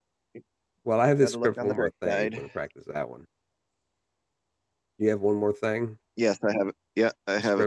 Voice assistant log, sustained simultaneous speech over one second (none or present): present